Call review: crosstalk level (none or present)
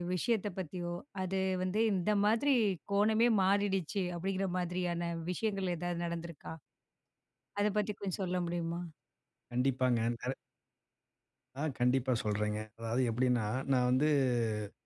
none